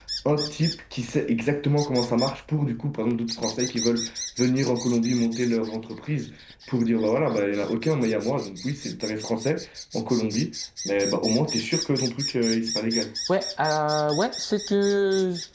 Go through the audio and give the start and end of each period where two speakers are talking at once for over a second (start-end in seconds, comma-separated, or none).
none